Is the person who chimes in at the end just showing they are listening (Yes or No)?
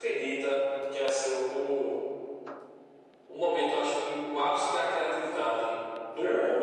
Yes